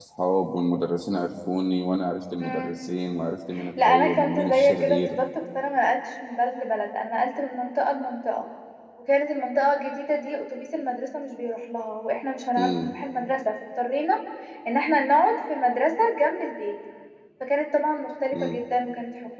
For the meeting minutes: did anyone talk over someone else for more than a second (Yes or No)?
Yes